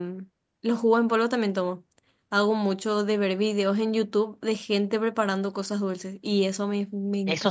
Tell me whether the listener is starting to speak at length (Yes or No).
Yes